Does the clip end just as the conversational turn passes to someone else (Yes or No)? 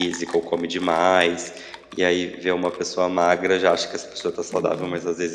No